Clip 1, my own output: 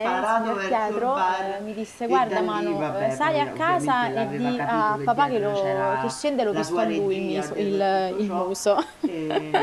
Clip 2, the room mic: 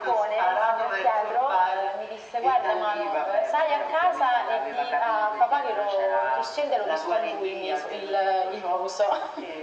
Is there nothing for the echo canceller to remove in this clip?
No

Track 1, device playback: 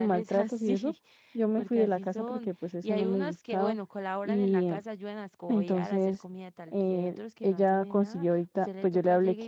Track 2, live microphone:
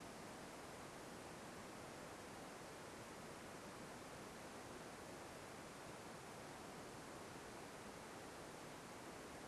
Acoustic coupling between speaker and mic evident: No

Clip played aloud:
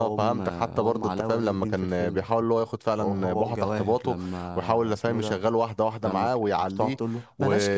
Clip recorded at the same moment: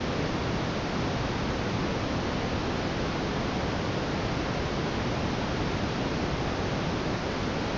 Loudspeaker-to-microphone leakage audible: No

